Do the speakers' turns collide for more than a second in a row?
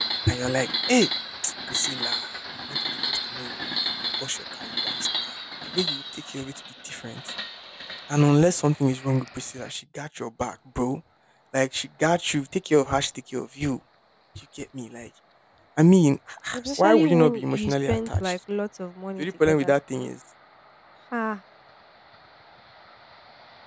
Yes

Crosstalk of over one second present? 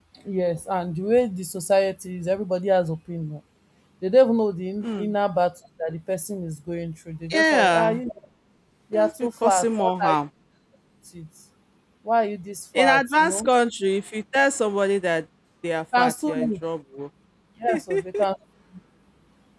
Yes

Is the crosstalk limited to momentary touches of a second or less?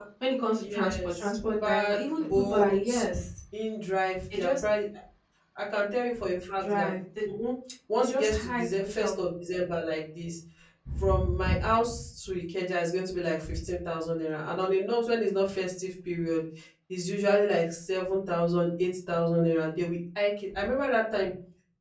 No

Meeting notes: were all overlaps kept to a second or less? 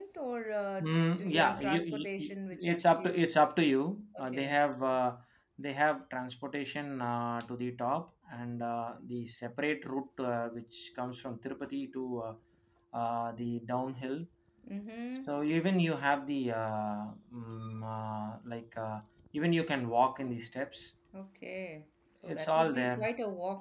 No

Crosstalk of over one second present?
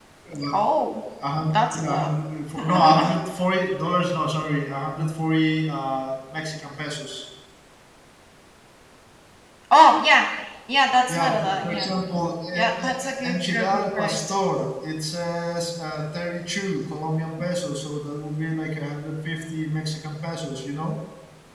Yes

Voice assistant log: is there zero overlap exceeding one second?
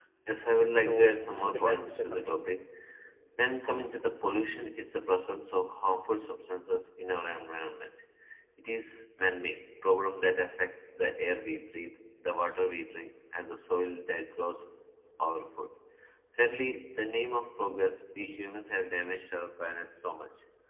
No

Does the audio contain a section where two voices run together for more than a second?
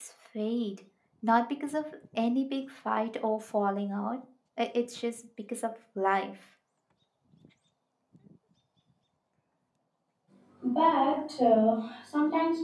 No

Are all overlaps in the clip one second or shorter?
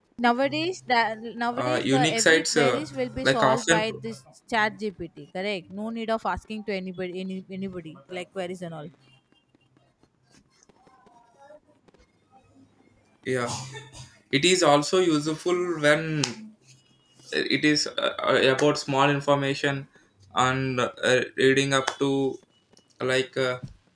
No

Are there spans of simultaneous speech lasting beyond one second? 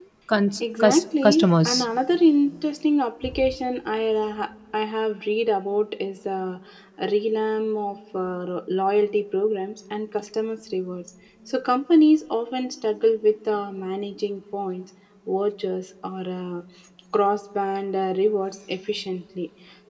Yes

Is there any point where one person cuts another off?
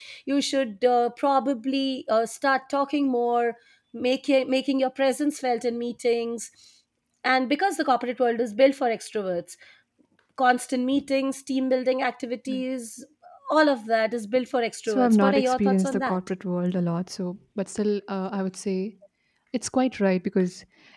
Yes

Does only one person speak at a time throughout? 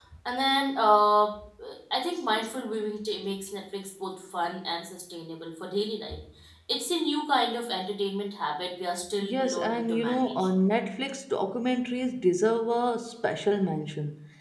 No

